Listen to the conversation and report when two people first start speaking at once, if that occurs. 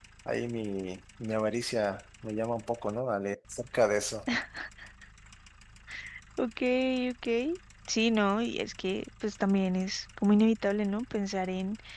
none

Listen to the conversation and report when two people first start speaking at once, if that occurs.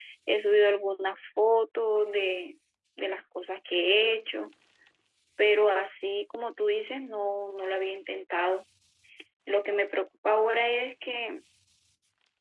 none

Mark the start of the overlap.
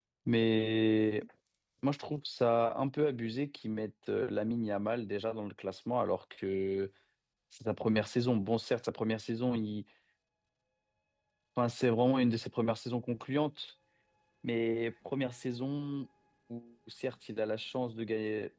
none

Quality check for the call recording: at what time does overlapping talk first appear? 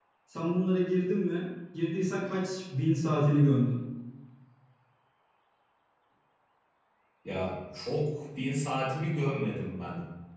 none

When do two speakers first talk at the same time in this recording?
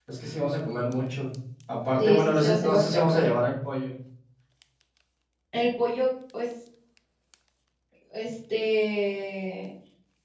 2.0 s

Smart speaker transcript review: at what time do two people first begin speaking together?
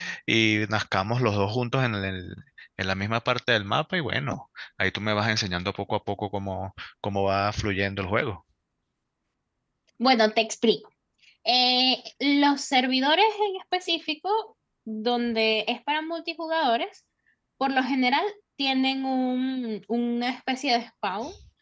none

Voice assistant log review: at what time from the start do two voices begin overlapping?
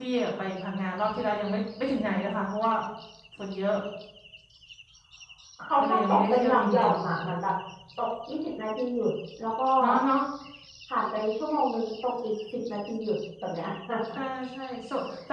5.8 s

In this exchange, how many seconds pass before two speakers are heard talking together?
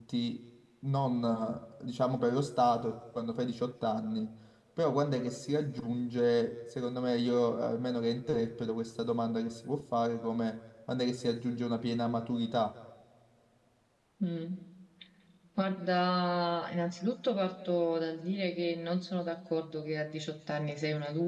none

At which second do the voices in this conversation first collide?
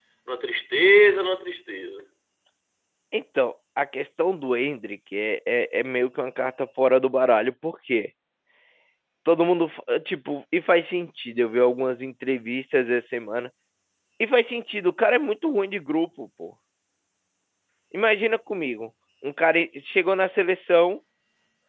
none

